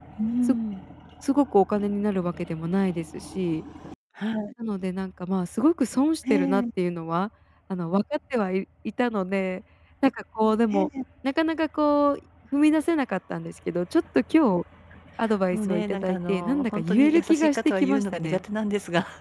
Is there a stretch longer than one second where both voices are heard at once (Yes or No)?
Yes